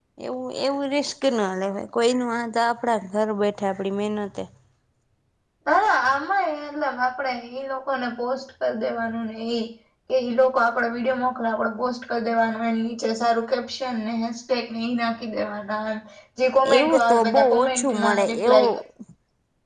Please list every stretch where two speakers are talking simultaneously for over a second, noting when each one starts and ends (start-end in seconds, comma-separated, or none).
16.8-18.8